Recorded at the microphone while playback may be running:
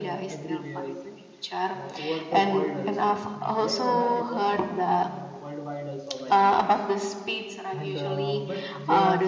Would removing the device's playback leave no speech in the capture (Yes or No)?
No